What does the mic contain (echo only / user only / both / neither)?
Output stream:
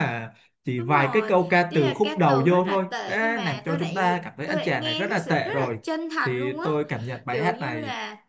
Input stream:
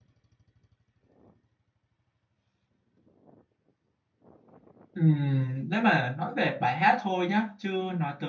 user only